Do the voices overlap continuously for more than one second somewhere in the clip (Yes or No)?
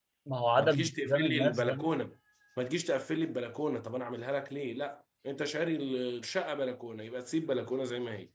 Yes